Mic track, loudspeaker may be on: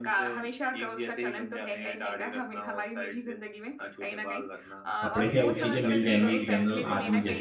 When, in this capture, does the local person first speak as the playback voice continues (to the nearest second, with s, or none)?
5 s